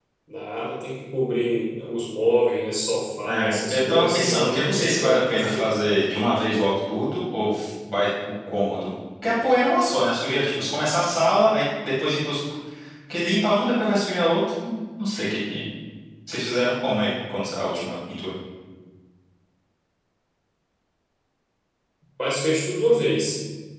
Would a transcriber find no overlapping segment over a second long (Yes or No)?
No